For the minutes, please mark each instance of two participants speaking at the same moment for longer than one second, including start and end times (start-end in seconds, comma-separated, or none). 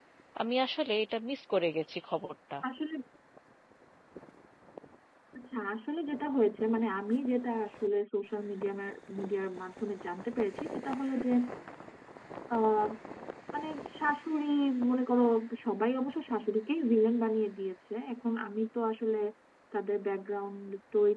none